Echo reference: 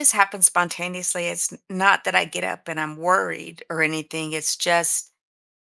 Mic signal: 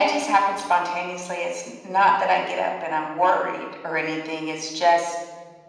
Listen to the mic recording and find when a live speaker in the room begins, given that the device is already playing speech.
none

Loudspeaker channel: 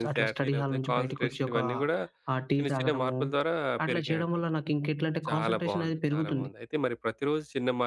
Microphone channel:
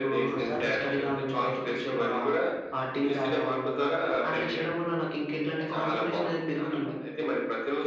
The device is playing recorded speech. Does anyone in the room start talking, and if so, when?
none

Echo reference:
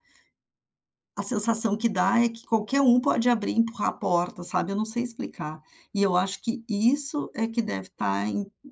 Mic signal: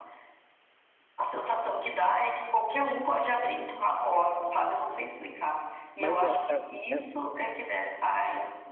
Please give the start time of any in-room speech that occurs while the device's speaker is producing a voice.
6.0 s

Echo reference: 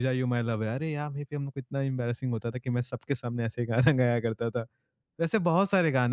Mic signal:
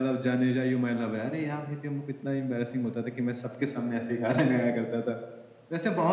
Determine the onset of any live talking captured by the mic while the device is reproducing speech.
none

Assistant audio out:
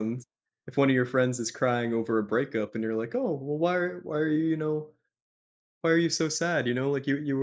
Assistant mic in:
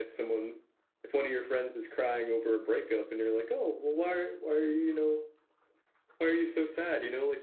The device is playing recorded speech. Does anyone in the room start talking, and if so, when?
none

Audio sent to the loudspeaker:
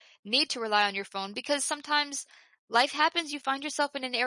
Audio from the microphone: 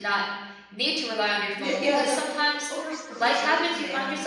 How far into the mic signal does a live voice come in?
1.6 s

